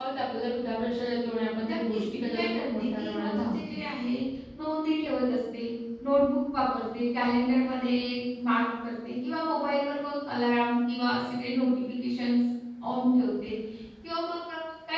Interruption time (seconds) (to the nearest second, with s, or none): 2 s